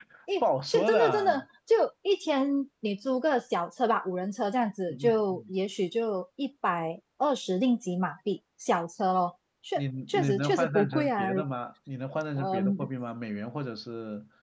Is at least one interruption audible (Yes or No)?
Yes